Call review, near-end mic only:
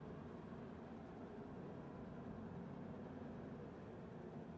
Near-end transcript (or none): none